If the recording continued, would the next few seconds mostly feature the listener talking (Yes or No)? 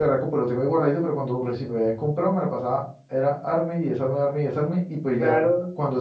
No